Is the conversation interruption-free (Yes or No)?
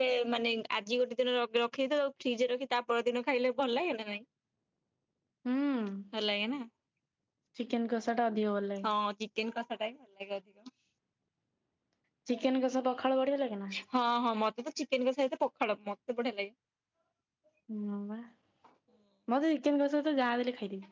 Yes